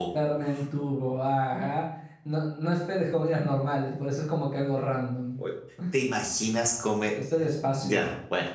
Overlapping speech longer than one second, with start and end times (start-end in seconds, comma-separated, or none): none